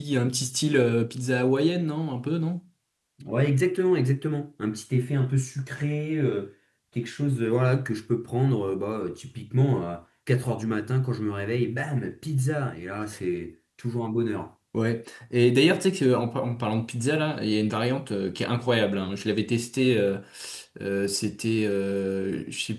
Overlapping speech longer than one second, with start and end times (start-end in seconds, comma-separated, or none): none